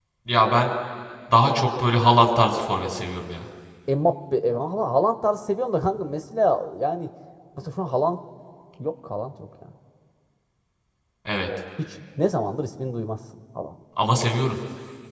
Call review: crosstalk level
none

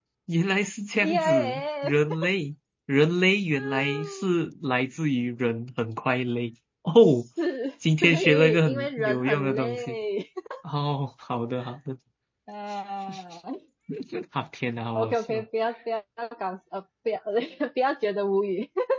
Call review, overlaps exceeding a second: present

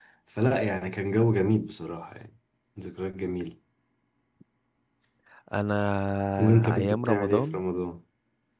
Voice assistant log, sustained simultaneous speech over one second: present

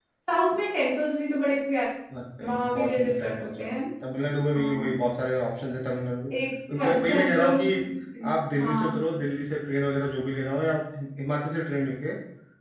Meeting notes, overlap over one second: present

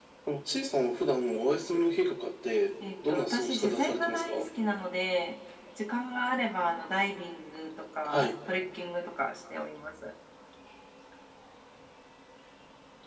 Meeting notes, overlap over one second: present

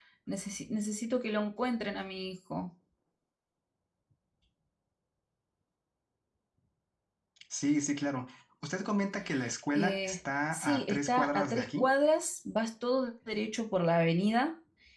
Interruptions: present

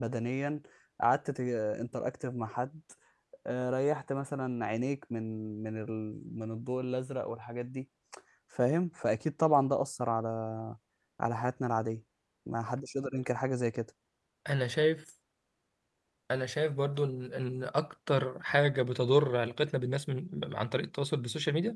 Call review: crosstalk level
none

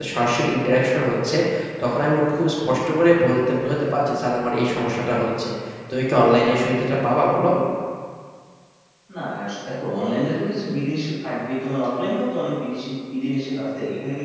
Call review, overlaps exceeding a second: none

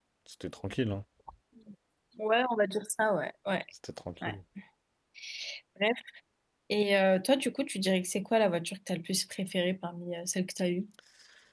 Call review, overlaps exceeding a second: none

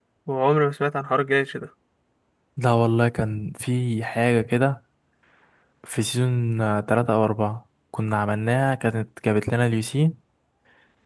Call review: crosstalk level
none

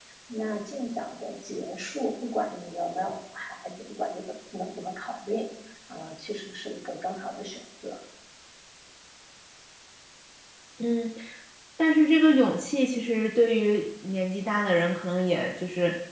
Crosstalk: none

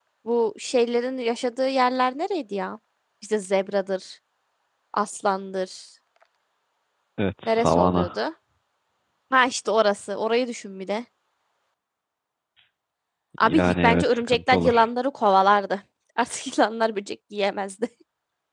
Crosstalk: present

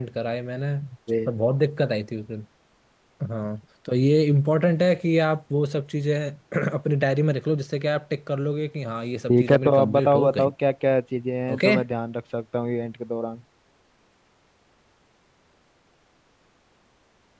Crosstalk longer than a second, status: present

